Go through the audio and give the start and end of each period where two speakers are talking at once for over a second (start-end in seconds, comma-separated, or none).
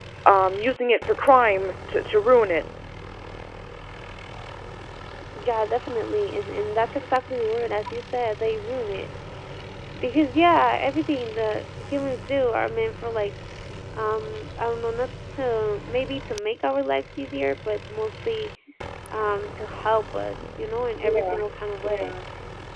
none